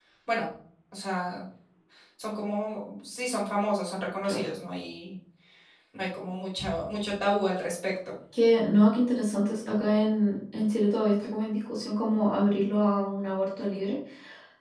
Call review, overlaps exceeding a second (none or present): none